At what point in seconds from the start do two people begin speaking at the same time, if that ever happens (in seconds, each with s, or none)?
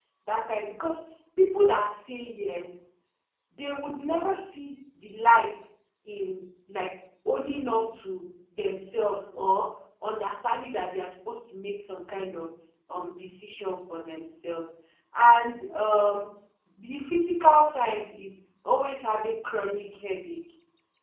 none